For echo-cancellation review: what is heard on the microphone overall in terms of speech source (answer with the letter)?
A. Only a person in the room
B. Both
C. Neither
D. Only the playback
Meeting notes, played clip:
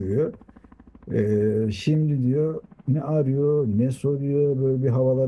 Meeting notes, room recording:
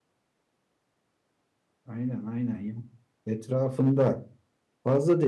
A